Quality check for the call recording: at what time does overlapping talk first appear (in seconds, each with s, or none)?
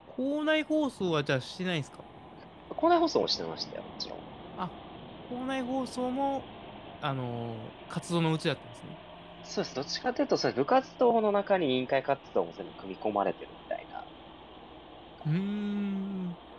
none